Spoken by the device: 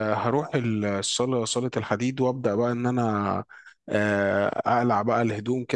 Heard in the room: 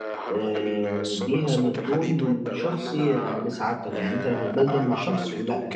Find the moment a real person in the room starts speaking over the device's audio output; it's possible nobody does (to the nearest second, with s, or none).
0 s